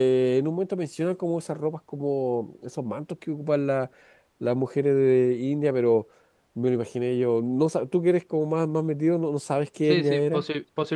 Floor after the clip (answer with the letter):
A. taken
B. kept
A